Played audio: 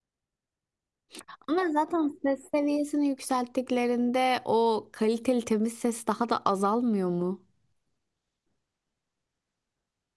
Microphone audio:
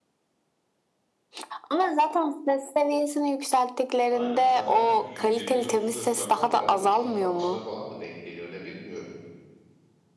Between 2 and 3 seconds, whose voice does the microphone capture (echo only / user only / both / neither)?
echo only